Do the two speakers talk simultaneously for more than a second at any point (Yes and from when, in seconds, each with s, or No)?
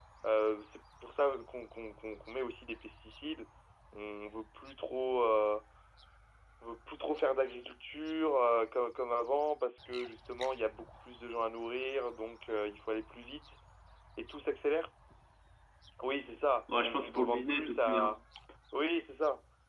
Yes, from 16.7 s